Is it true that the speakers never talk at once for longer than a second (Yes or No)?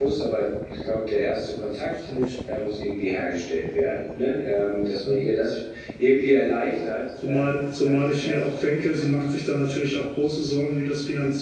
No